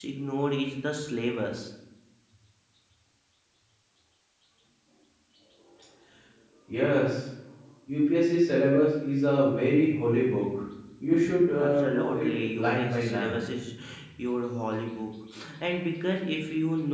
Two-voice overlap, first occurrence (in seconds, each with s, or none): 11.6 s